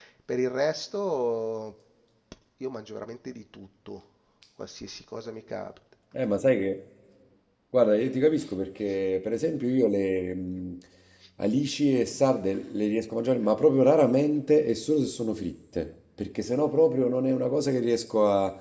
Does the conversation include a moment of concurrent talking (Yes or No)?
No